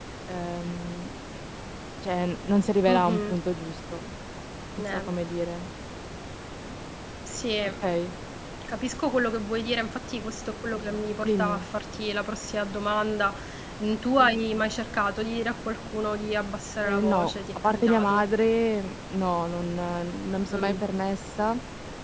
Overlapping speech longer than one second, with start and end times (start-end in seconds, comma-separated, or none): 16.8-18.2